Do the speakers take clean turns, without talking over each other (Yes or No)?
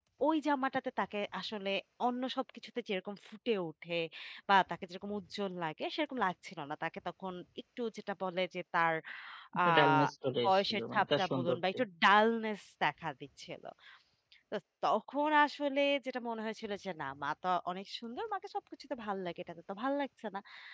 No